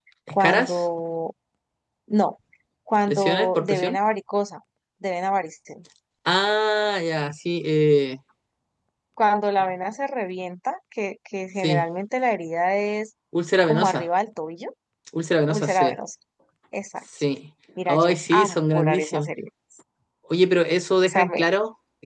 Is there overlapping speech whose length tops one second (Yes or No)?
Yes